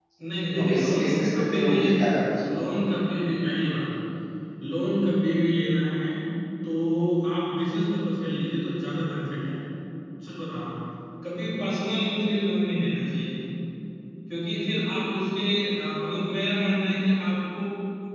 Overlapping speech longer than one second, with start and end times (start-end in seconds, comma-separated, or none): 0.6-1.8